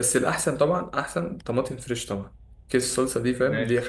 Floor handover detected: No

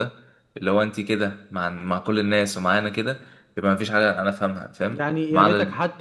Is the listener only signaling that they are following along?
No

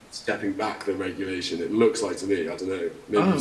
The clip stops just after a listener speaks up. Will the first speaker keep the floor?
No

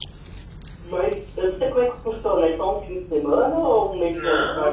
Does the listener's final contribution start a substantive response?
Yes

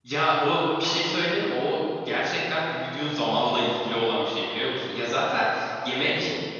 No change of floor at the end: Yes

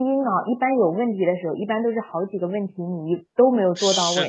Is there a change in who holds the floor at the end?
Yes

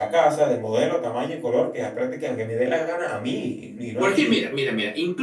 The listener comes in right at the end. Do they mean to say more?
Yes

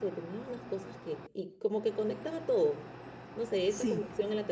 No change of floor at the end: Yes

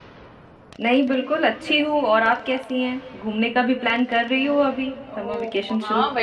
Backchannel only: No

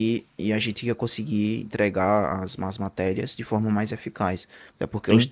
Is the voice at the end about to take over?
No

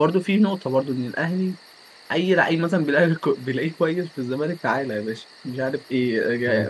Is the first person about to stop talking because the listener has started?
No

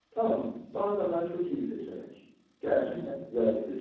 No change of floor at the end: Yes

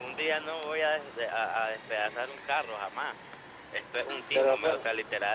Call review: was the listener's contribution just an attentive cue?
Yes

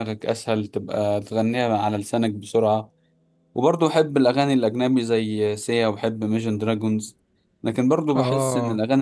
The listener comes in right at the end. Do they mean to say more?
No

